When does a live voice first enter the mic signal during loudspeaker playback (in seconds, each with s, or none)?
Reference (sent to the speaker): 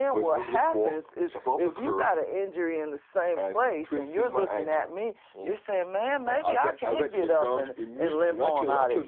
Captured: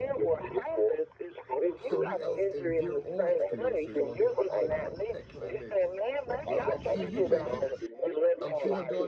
1.8 s